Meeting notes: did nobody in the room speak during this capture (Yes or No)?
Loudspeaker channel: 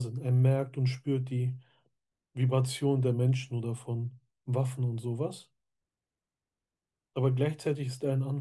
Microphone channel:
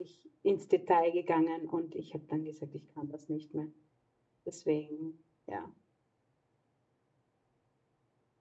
No